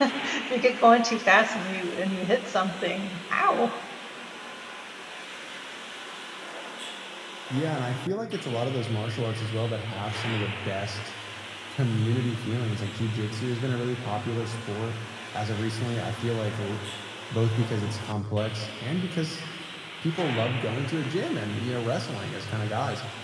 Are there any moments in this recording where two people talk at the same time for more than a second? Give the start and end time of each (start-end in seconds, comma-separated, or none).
none